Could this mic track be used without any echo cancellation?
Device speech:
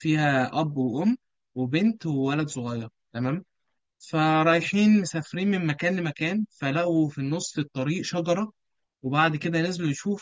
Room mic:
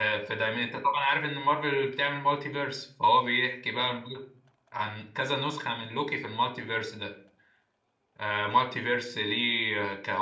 Yes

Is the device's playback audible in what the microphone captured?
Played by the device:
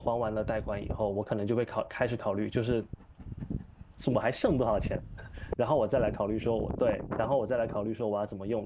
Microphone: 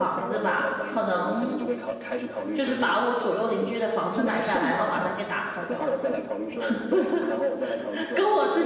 Yes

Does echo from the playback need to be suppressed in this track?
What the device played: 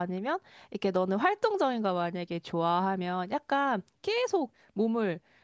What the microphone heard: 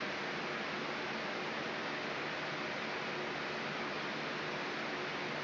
No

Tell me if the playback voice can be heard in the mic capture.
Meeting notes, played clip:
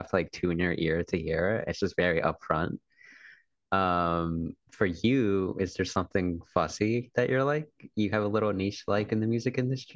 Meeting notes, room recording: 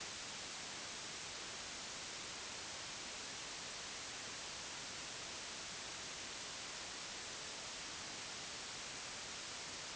No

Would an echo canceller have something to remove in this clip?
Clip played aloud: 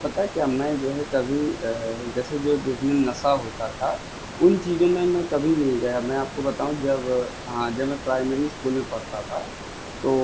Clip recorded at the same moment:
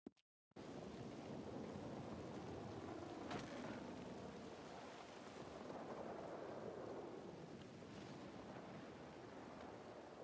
No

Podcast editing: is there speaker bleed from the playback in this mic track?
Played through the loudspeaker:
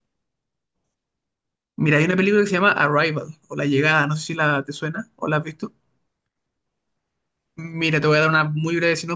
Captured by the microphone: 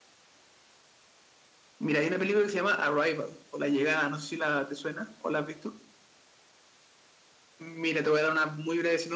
Yes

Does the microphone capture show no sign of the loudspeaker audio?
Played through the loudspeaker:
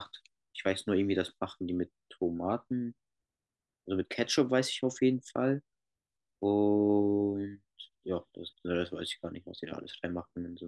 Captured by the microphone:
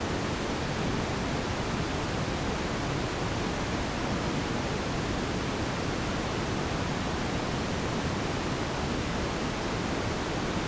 Yes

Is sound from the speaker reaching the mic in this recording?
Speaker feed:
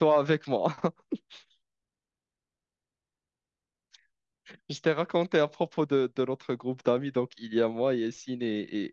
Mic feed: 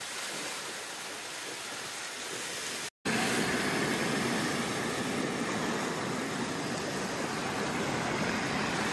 No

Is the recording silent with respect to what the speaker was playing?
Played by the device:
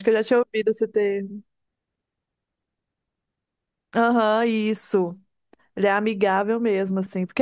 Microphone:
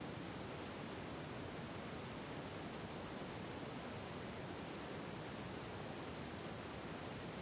Yes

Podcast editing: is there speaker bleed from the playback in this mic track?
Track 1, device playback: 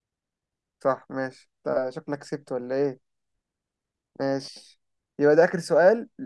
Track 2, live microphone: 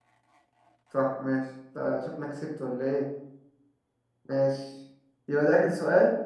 Yes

